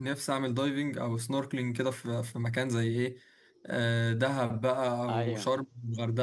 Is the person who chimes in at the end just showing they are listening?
Yes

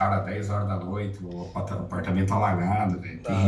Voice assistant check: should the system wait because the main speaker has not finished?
No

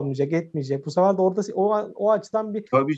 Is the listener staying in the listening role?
No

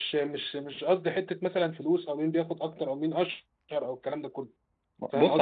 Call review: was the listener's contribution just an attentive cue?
No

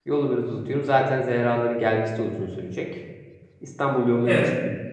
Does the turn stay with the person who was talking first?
Yes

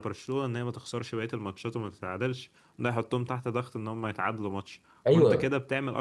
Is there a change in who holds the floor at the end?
No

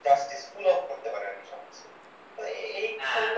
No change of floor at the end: Yes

